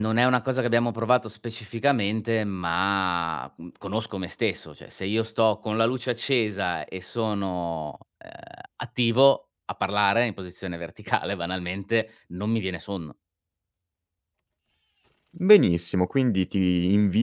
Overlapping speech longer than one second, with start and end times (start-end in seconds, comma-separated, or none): none